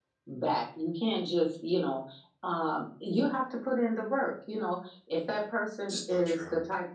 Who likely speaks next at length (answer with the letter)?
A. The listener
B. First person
B